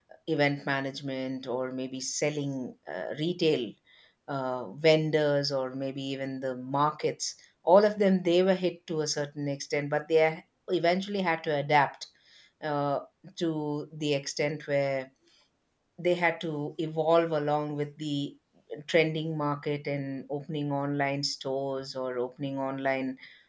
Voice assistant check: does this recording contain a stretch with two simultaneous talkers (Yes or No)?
No